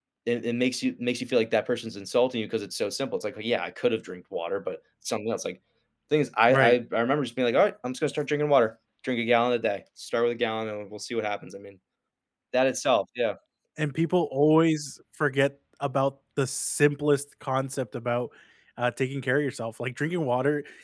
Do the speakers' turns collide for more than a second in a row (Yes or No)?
No